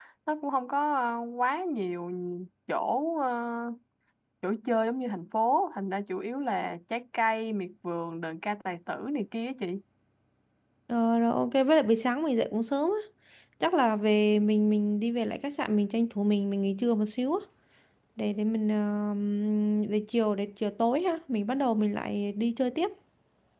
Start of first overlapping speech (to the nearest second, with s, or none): none